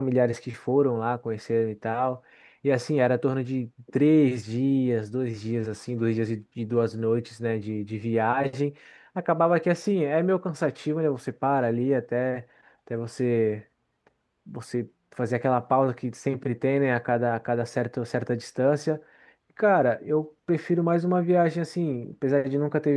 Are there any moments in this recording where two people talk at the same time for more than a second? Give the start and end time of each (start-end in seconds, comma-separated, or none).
none